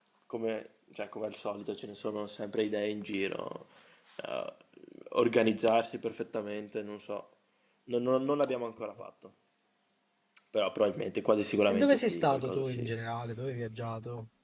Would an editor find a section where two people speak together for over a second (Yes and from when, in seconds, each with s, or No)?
Yes, from 11.7 s